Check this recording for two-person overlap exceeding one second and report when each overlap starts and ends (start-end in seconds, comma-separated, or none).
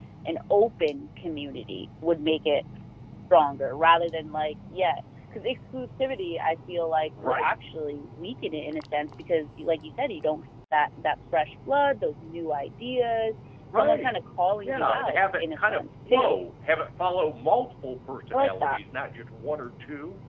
14.6-16.4